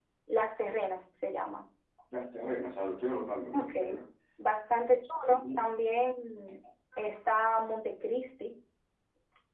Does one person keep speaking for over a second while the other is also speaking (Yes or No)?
No